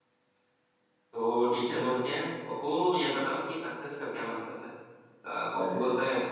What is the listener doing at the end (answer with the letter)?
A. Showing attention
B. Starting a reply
A